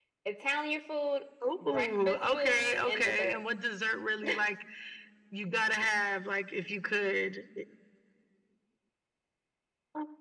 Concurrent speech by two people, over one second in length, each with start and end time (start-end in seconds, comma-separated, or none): 1.7-3.4